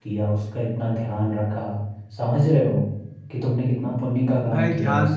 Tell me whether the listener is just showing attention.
No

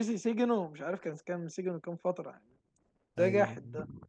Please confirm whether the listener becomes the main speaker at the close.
No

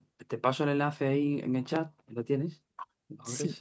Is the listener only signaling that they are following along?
Yes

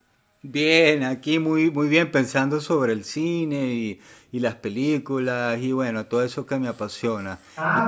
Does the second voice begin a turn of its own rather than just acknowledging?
Yes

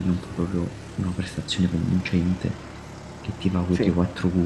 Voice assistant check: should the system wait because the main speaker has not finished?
Yes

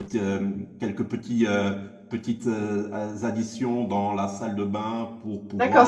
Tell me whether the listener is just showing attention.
No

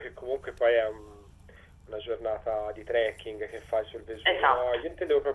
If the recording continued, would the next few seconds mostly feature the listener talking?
No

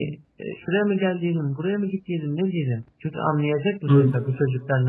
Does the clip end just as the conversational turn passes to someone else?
No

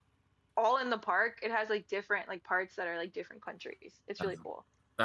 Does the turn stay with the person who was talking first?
No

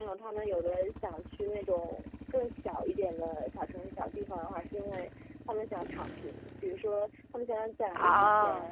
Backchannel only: Yes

